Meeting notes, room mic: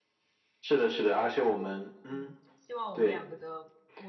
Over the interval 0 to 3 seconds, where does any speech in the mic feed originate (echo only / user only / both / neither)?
both